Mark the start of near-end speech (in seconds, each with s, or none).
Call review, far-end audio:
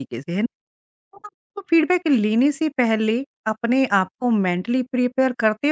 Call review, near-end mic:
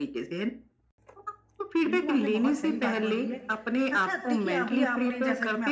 1.9 s